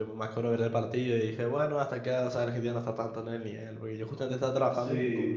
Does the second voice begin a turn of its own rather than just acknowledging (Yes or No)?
No